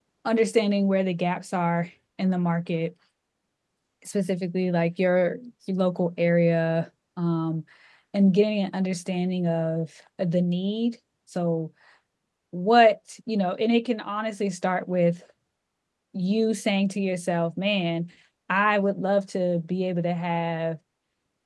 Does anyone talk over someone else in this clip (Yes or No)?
No